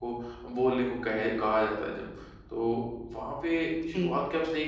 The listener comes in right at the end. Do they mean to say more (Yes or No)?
No